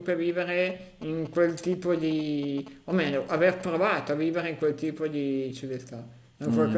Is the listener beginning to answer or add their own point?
Yes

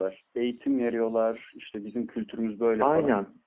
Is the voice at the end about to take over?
Yes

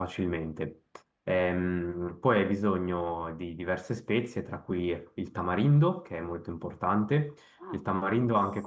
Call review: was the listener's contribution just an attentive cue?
Yes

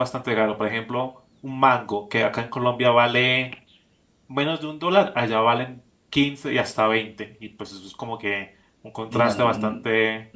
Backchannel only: No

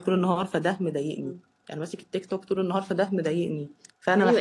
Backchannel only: No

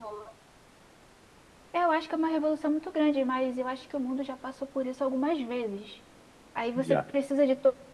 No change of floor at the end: Yes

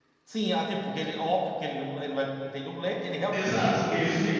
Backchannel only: No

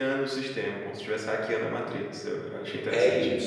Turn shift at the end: Yes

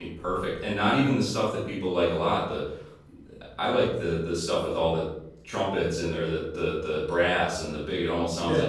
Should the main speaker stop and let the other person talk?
No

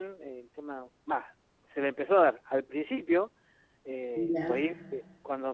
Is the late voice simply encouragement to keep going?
Yes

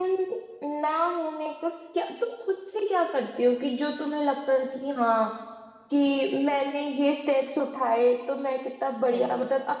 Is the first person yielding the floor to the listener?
No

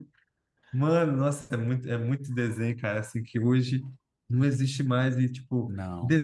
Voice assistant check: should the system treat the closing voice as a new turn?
No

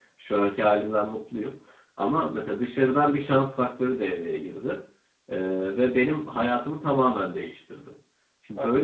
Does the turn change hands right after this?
No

